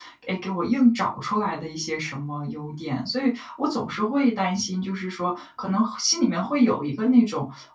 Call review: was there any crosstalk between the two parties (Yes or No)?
No